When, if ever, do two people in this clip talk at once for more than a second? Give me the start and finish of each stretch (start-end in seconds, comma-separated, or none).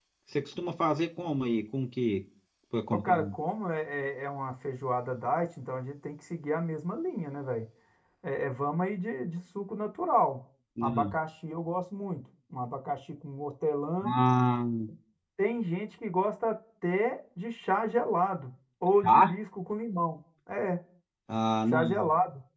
none